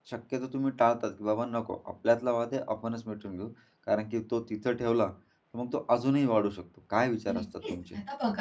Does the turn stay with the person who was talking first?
No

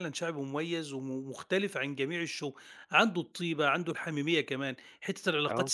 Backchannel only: Yes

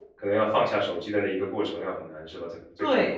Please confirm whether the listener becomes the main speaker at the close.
Yes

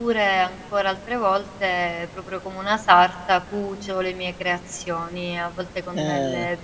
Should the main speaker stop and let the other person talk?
No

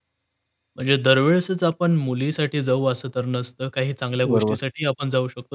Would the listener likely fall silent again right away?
Yes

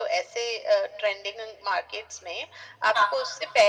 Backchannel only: Yes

